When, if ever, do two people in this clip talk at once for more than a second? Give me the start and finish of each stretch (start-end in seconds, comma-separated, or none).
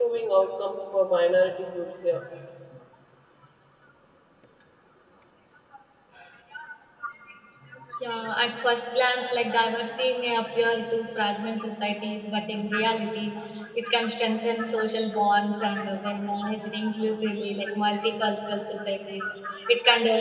none